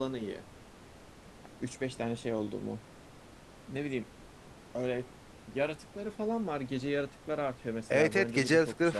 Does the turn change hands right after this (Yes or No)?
Yes